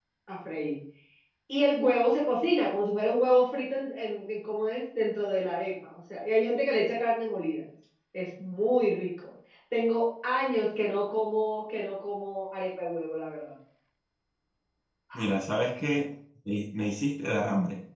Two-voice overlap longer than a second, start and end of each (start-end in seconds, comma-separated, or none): none